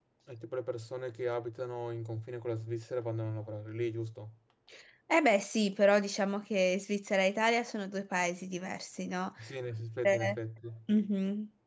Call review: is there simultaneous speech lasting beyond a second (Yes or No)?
No